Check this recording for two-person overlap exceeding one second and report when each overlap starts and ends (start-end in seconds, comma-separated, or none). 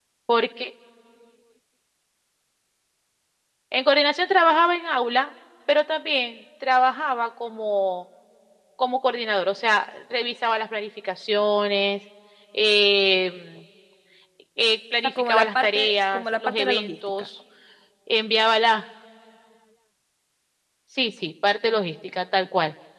15.0-17.3